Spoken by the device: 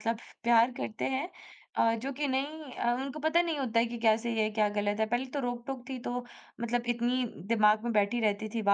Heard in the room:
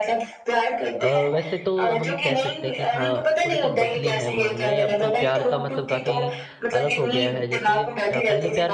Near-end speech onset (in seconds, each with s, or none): 1.0 s